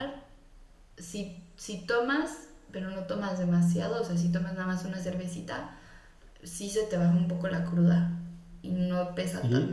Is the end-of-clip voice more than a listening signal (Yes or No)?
Yes